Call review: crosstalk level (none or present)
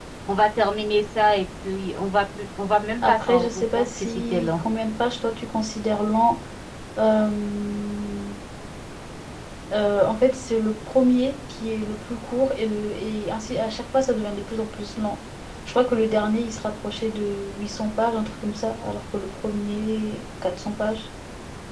present